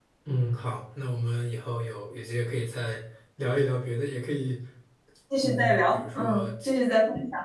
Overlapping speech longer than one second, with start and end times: 5.4-6.7

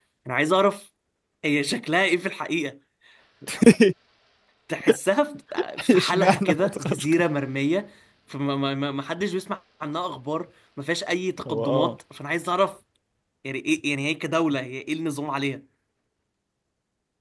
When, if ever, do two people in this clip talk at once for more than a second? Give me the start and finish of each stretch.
5.9-7.2

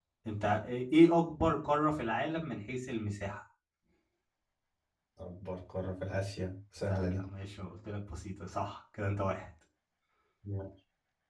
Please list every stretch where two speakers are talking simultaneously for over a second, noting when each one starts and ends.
none

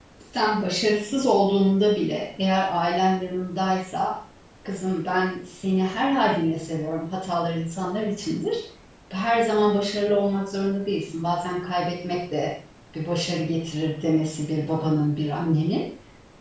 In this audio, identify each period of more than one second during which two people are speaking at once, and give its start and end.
none

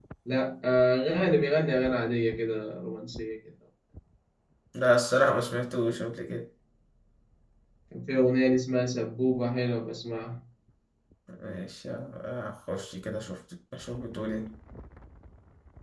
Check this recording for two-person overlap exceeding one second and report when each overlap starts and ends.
none

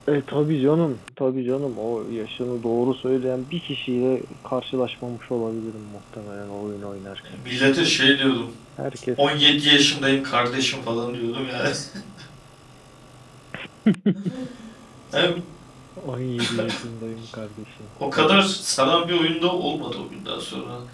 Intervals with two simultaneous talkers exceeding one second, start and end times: none

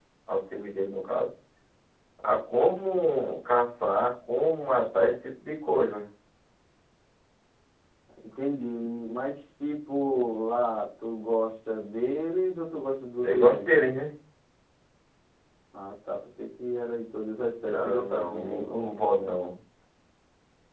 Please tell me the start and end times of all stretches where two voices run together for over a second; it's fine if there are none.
17.6-18.9

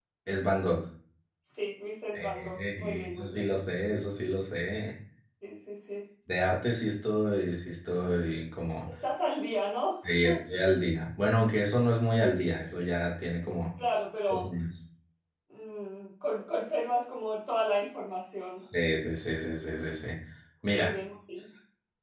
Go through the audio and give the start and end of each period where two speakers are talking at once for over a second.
2.2-3.5

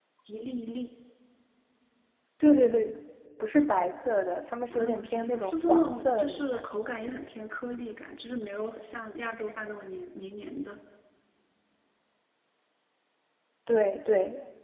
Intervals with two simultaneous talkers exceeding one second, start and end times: 4.7-6.7

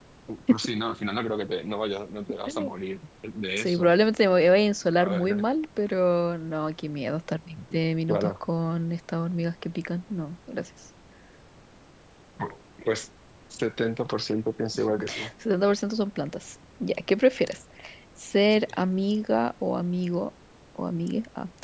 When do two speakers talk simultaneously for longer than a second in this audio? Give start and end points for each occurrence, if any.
none

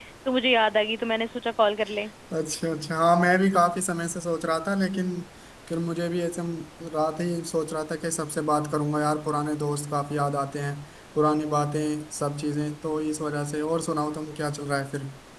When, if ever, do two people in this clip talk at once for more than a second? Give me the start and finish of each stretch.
none

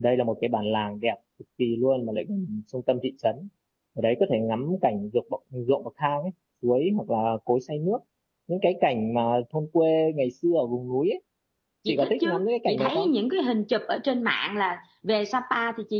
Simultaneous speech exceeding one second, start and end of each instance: 11.9-13.1

